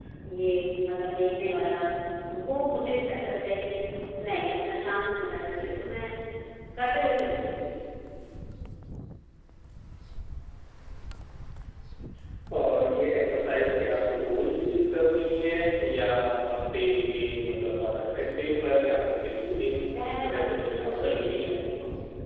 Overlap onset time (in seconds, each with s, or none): 19.8 s